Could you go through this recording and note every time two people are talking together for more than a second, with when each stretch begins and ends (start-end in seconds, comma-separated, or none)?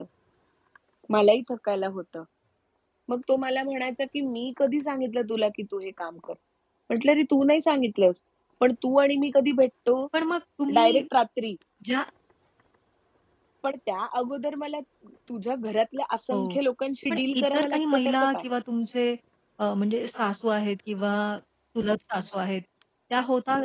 17.1-18.4